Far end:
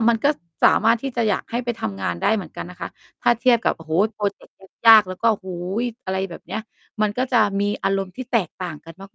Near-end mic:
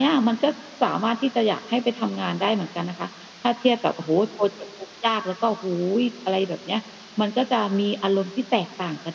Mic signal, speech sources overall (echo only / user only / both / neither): echo only